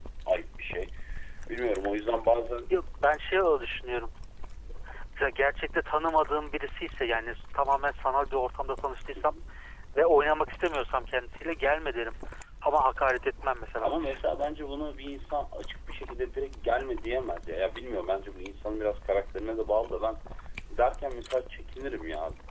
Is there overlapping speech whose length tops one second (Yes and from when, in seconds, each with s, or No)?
No